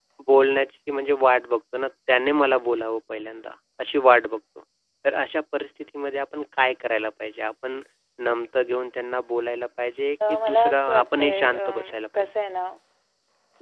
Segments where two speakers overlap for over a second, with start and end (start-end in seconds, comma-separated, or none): 10.3-11.6